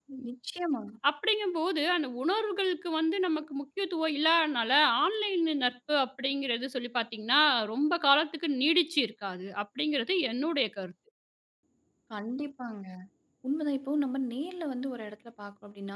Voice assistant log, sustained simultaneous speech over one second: none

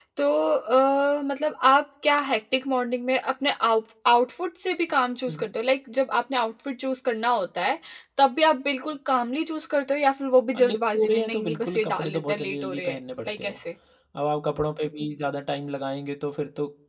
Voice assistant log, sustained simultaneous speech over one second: present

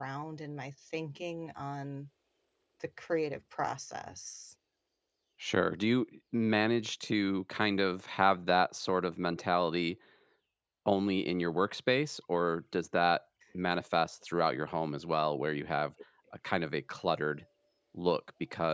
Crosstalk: none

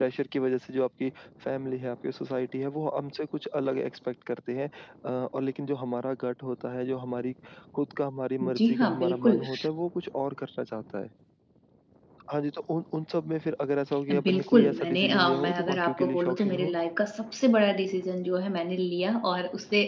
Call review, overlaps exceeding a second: present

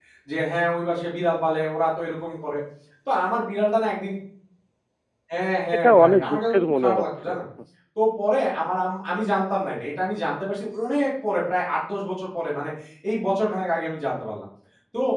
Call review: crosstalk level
present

